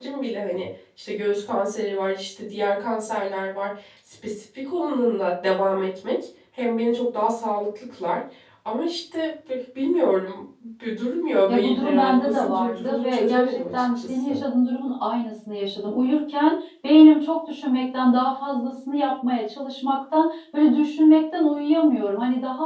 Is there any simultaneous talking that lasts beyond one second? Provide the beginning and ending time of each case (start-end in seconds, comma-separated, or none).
11.5-14.4